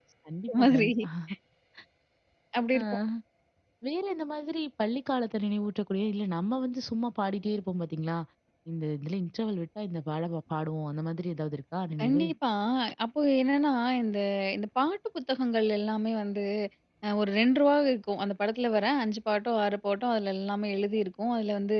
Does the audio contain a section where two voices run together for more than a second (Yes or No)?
No